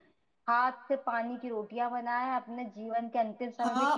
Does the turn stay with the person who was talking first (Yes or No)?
No